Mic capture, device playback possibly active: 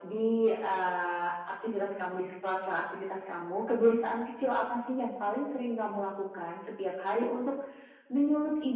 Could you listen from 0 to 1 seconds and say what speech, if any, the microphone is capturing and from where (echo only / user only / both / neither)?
echo only